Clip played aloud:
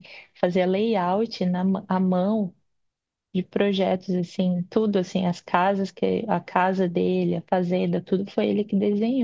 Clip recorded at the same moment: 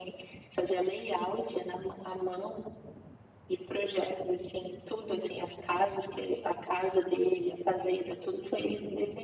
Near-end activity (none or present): none